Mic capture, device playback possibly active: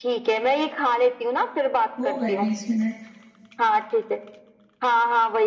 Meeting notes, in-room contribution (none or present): present